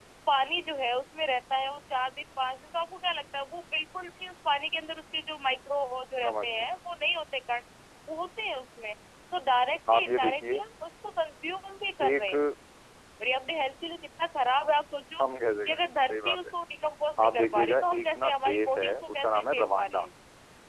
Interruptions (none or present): present